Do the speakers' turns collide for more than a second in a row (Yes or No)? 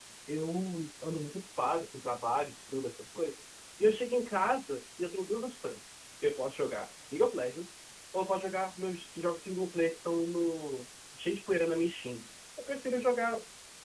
No